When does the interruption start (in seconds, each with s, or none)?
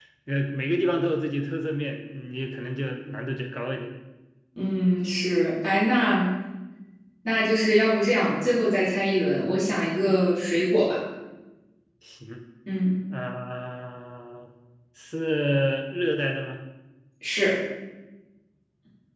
none